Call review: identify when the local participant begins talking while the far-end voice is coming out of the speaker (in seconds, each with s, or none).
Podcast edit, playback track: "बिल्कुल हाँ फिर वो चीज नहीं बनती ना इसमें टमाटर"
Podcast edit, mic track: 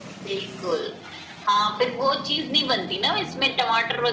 none